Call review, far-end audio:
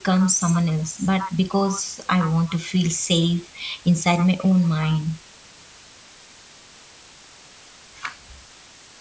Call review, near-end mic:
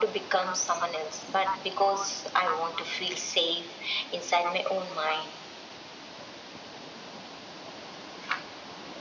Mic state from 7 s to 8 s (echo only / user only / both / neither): neither